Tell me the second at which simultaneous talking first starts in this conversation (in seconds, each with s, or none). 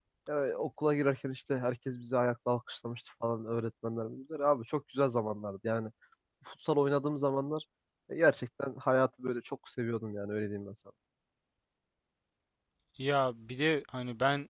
none